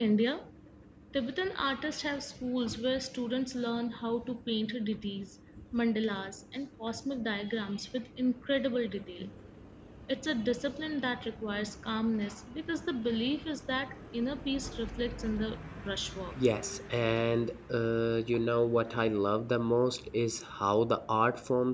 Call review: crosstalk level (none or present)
none